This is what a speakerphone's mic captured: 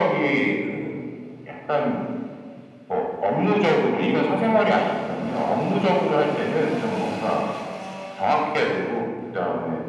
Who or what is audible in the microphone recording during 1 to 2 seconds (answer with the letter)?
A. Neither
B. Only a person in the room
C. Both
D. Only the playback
D